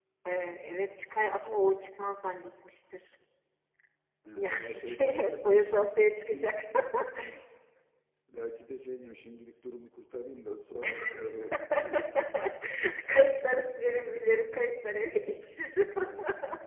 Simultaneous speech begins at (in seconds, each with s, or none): 4.3 s